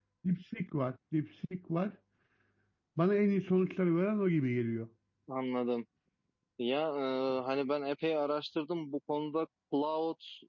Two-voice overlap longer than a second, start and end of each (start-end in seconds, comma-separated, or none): none